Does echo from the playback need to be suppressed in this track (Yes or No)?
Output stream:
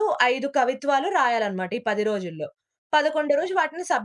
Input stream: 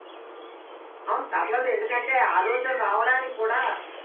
No